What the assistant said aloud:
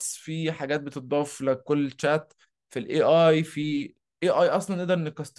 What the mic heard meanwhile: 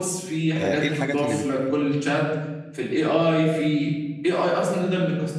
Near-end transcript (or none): آه، ايه الحاجات اللي بت-